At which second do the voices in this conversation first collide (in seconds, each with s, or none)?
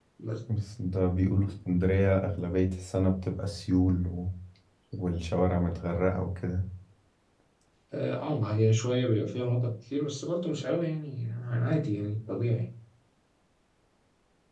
none